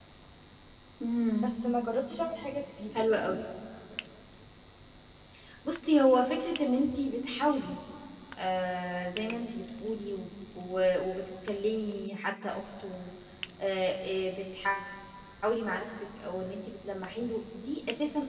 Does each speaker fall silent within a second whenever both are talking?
Yes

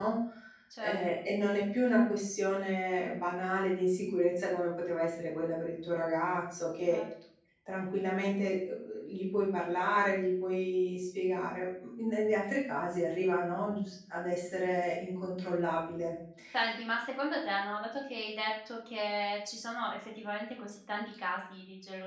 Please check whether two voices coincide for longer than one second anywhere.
No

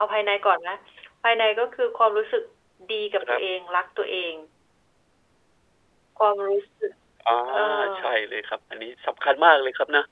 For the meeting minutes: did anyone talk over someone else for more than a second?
No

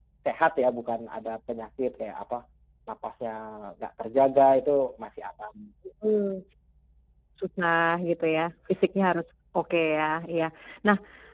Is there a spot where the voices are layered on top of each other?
No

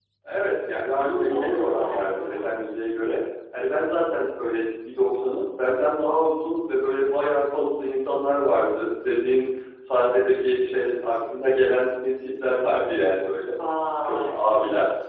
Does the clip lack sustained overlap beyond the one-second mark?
No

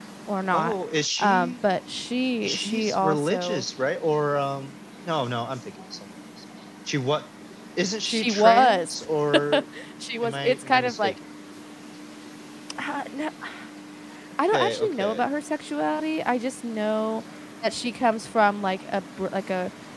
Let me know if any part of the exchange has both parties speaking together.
Yes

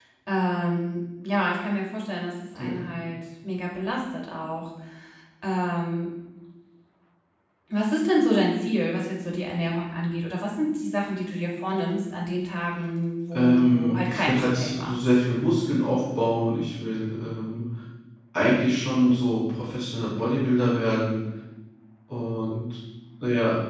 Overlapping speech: Yes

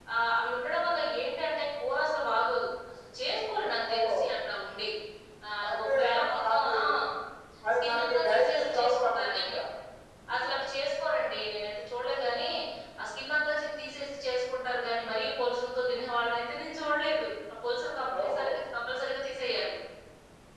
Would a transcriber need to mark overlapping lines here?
Yes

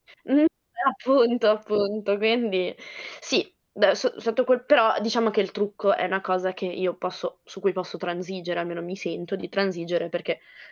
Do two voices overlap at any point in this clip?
No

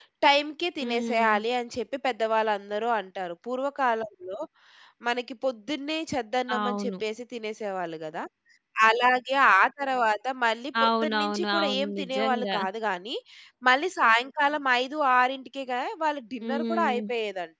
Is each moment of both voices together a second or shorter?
No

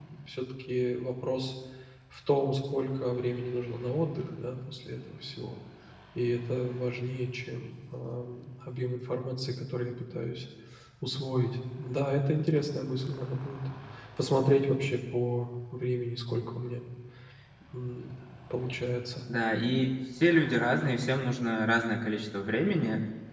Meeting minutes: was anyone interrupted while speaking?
No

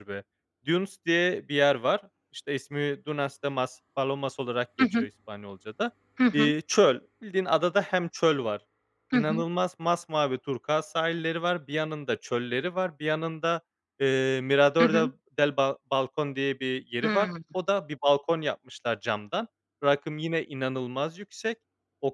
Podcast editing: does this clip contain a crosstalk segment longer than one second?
No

